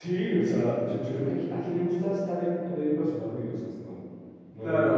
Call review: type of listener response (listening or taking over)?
taking over